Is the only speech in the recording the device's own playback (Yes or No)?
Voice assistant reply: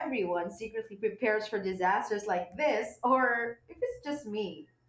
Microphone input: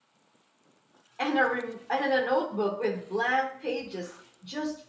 No